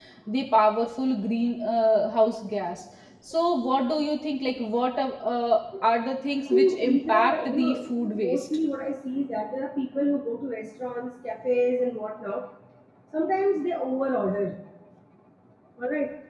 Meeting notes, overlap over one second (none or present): present